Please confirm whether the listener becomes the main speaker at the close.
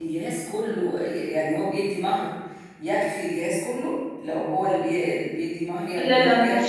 Yes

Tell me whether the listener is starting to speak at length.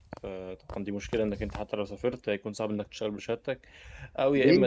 Yes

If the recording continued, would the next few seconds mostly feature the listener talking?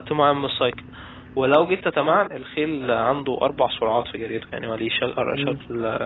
No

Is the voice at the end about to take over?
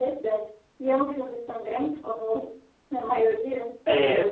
Yes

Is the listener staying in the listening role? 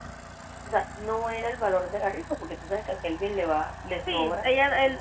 No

